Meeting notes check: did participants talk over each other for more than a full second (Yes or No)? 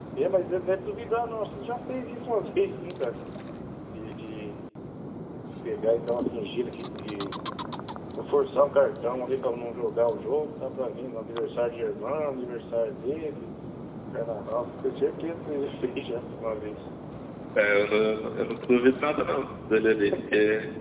No